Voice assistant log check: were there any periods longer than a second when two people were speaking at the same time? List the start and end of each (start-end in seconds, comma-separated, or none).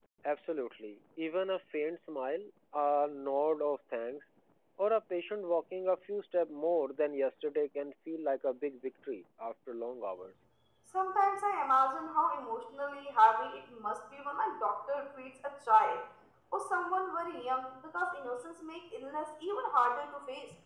none